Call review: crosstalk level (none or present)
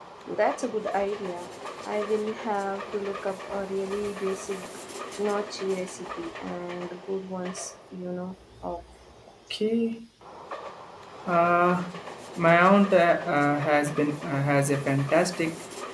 none